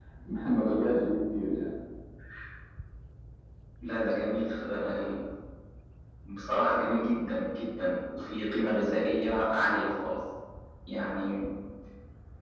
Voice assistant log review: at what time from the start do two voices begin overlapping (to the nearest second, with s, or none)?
none